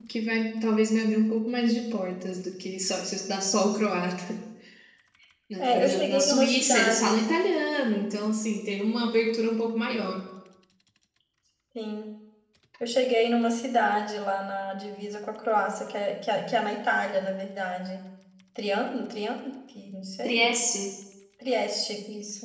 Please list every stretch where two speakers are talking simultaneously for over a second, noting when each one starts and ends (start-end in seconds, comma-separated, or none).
5.6-7.2